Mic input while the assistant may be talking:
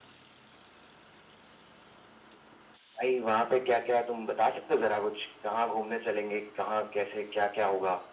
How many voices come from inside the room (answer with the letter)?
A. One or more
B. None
B